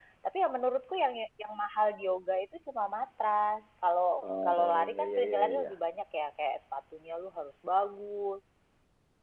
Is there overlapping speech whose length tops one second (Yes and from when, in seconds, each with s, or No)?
Yes, from 4.5 s